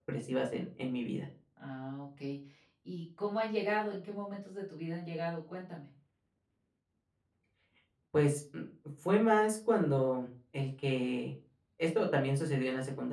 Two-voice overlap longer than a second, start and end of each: none

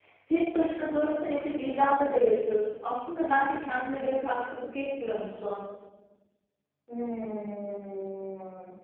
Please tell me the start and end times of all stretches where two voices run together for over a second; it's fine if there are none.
none

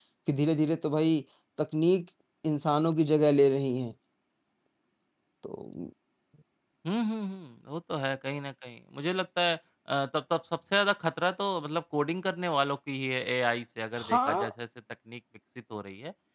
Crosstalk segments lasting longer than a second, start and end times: none

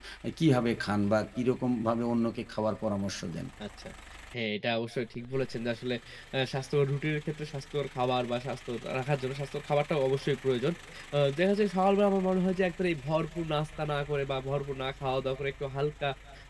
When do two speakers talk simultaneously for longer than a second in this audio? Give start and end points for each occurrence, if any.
none

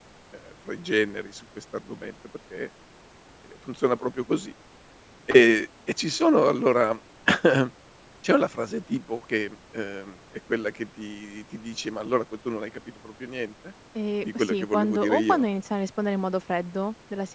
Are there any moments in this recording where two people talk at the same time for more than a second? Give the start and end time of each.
14.2-15.5

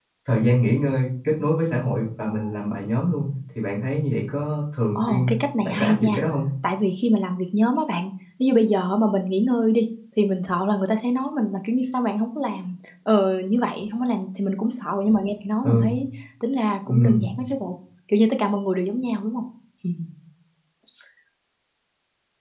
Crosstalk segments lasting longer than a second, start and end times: 5.0-6.2

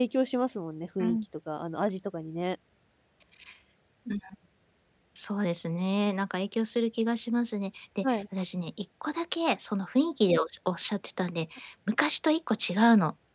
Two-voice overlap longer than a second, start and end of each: none

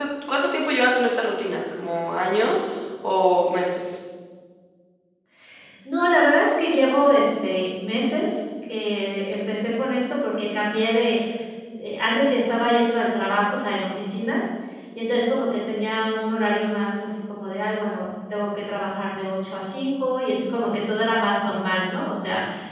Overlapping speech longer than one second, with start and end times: none

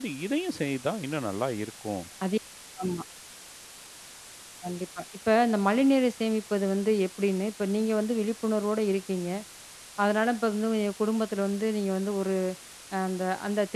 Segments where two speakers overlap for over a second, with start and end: none

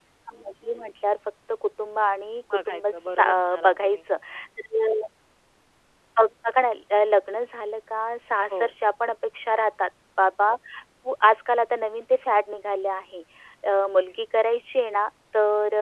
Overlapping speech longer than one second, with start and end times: 2.7-4.0

